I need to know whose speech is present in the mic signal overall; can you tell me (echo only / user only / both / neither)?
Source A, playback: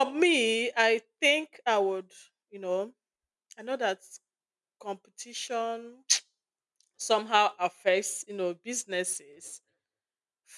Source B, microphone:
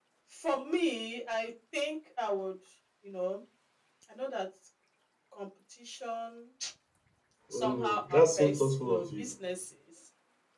both